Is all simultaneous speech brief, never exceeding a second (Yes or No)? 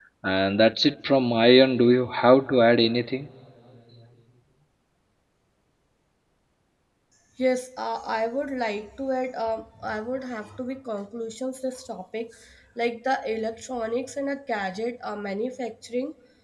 Yes